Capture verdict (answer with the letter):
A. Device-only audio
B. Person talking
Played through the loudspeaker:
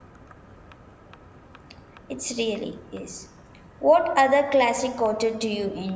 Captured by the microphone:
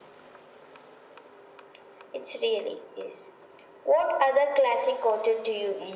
A